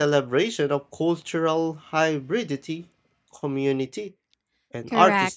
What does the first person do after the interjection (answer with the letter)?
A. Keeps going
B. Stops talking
B